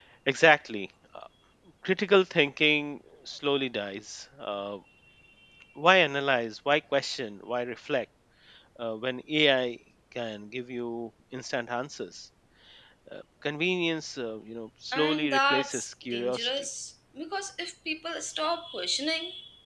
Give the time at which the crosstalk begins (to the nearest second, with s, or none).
15 s